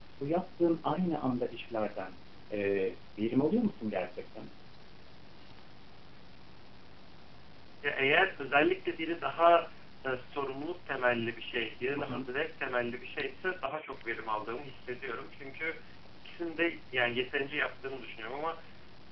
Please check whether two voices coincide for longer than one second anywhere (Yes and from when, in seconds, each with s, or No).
No